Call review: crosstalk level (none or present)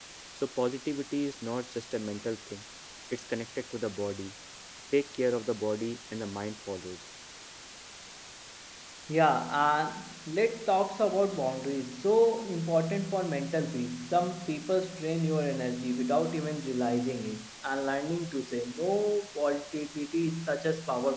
none